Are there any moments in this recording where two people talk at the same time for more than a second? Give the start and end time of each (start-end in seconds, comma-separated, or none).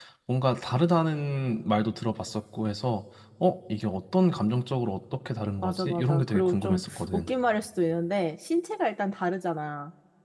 5.6-7.3